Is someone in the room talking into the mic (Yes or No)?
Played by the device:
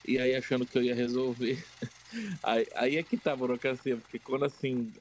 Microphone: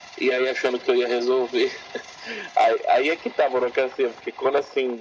No